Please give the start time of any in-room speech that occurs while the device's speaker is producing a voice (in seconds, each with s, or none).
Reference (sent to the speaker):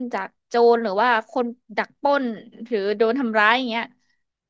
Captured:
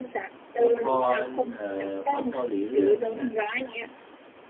0.6 s